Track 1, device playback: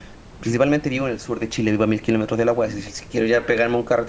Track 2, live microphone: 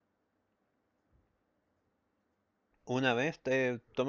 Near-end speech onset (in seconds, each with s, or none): 2.9 s